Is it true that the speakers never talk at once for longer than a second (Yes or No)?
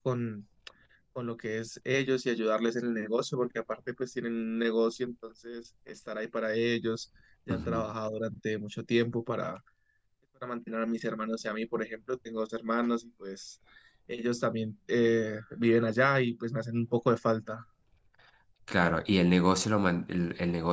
Yes